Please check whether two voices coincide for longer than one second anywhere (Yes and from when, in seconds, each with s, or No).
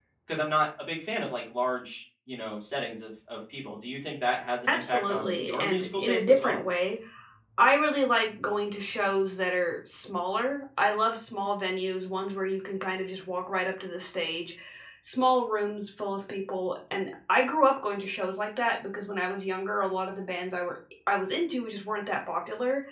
Yes, from 4.7 s